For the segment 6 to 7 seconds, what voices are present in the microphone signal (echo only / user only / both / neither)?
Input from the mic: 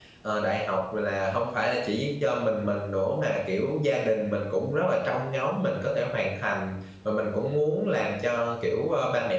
user only